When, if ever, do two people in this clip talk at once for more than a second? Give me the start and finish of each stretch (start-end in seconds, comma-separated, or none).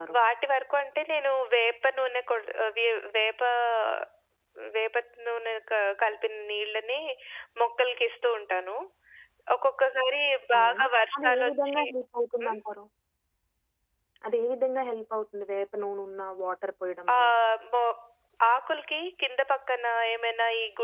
10.6-11.8